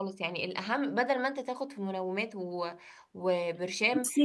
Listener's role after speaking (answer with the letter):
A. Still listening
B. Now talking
A